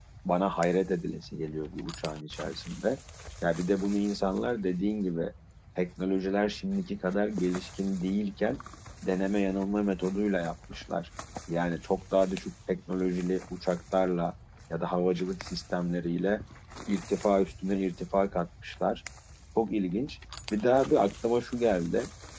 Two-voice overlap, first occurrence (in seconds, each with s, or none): none